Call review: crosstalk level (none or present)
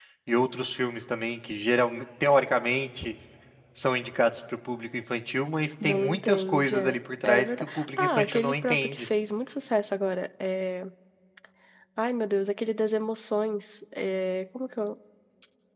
present